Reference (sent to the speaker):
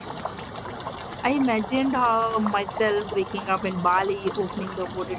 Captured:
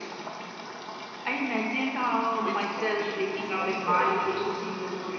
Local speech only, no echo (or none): which would be before productivity.